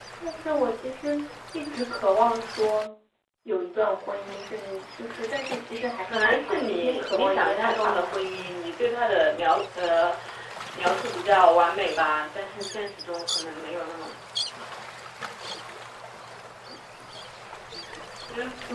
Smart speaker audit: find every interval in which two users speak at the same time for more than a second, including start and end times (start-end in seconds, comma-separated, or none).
6.1-8.1